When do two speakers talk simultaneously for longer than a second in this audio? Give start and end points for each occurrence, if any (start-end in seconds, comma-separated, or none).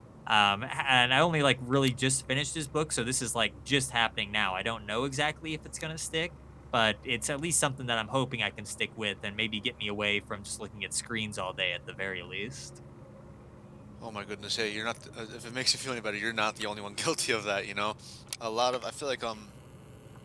none